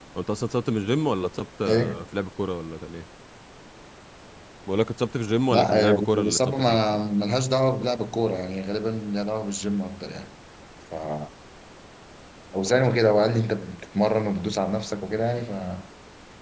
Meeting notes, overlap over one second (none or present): present